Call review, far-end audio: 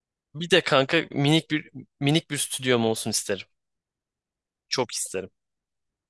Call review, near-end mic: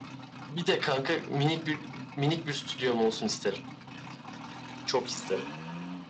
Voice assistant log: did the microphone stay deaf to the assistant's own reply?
No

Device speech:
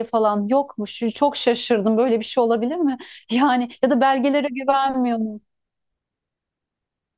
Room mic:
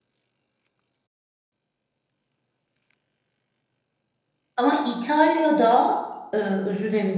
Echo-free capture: Yes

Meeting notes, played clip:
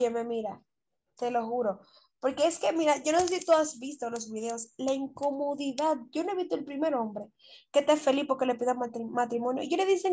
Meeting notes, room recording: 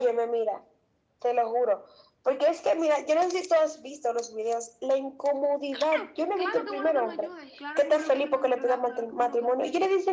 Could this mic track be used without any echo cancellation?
No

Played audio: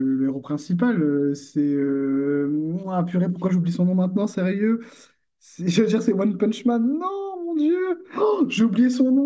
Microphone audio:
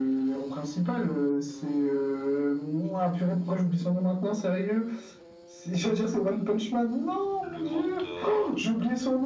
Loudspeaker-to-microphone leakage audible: Yes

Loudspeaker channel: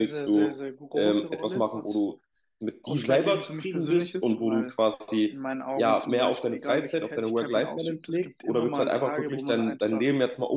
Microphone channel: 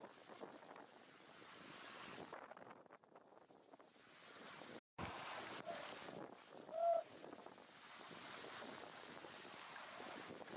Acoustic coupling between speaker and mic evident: No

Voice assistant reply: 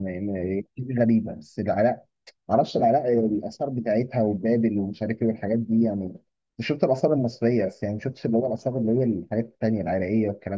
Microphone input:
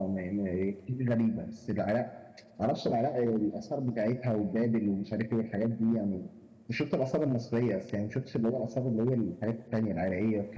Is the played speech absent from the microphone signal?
No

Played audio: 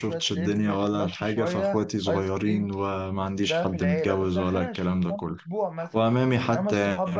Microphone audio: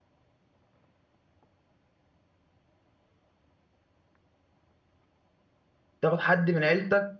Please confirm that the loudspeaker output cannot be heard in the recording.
Yes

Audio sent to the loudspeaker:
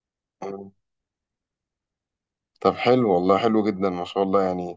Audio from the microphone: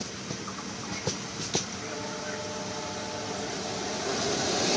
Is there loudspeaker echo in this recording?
No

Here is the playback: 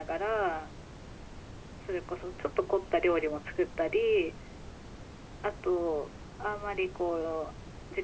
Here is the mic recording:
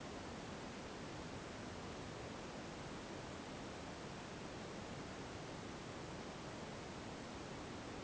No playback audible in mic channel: Yes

